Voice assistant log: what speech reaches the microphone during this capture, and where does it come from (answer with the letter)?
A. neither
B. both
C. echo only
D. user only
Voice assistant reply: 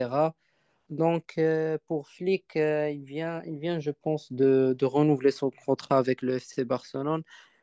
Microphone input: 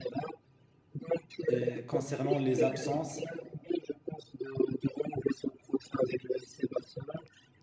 B